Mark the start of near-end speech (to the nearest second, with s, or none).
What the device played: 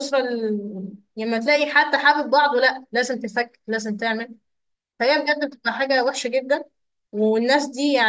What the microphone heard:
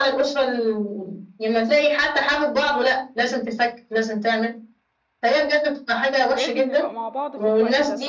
6 s